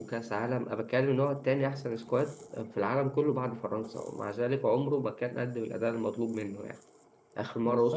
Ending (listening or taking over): listening